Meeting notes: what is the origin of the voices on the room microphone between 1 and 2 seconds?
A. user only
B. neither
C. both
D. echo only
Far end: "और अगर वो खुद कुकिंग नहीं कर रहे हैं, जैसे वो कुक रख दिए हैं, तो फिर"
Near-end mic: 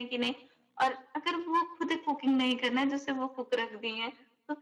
D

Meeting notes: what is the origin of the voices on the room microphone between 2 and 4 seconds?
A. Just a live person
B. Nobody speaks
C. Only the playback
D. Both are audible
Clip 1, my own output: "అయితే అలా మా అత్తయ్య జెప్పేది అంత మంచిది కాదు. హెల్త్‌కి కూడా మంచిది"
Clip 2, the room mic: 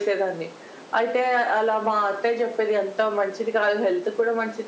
C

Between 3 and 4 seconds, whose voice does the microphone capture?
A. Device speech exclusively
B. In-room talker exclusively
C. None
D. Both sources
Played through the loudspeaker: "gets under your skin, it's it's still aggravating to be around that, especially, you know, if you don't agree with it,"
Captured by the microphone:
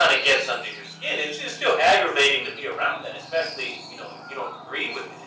A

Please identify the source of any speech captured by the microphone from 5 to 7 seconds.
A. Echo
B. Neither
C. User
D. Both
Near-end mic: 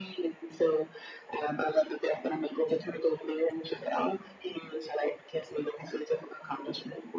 A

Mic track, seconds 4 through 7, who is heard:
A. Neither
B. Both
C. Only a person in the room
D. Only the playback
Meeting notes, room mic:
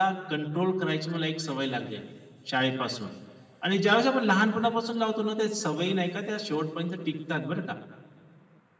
D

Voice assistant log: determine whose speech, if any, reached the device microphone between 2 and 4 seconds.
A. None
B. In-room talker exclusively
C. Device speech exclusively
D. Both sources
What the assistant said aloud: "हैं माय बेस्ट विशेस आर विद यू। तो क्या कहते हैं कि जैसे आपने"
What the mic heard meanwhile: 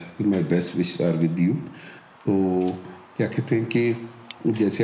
C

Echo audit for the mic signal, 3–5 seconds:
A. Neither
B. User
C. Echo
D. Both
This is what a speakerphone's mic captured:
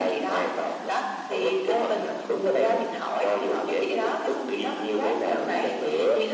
D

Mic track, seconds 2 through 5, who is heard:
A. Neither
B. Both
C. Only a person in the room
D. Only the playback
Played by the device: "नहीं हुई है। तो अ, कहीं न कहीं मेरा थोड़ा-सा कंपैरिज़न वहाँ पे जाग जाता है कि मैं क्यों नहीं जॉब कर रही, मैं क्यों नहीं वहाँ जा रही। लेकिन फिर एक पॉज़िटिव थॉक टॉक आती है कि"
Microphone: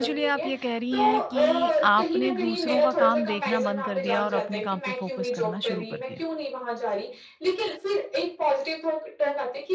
B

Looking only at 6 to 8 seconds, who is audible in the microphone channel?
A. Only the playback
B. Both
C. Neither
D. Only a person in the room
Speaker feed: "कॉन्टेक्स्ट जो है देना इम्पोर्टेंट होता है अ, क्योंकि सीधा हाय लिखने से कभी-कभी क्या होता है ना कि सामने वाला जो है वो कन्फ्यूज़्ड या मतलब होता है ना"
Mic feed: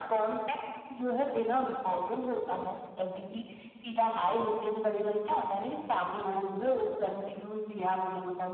A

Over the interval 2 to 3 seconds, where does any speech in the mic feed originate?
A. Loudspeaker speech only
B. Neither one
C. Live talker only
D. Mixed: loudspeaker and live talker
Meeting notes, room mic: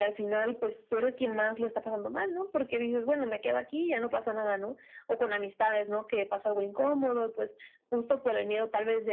A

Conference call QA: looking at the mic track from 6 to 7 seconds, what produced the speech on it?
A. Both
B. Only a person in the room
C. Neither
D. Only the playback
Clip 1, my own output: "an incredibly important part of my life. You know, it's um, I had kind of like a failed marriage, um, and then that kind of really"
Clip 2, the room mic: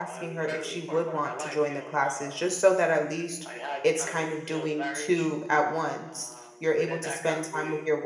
A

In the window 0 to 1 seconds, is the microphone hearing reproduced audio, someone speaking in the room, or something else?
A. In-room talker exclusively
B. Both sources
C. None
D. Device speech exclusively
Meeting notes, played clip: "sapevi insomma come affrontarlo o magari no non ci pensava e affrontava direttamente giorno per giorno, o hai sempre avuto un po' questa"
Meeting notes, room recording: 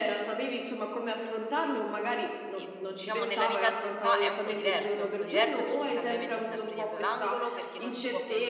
D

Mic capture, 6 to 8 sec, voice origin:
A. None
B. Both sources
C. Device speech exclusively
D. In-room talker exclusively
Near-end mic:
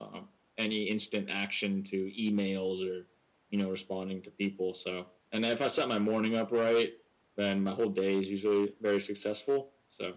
C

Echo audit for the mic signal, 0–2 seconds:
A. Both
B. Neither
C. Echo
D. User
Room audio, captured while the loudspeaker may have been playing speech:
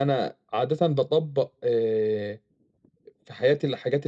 C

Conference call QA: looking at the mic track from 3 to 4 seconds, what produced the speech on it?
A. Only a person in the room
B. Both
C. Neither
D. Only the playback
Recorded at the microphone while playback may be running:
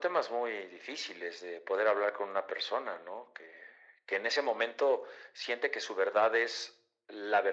D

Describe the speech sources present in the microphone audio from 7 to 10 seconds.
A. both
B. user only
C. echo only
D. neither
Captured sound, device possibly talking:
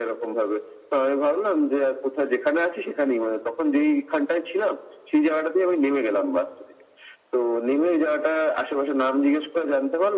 C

